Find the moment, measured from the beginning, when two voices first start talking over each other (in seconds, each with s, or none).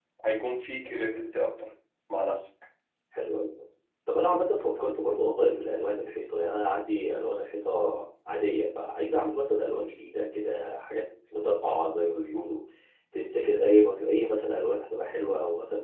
none